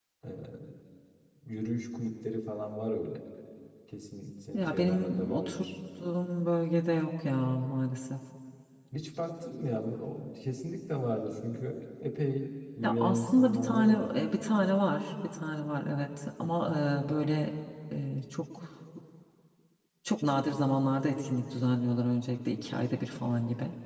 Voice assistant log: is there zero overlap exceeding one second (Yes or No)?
No